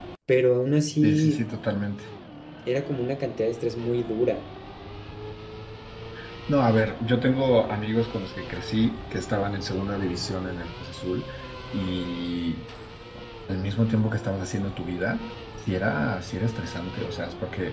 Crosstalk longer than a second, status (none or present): none